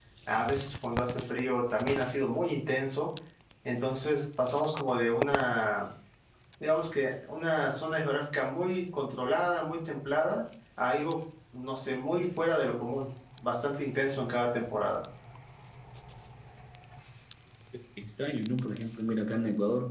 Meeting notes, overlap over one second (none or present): none